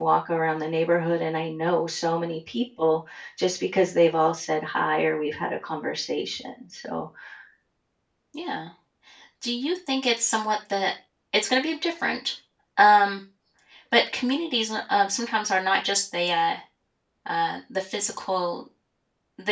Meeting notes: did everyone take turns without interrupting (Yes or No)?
Yes